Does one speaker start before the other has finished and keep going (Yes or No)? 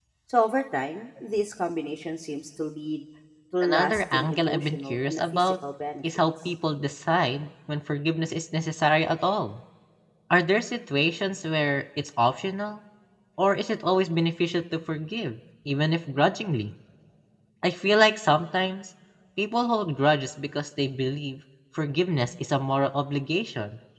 Yes